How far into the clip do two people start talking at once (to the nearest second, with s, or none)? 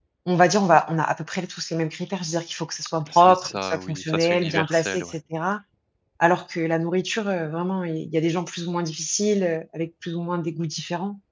3 s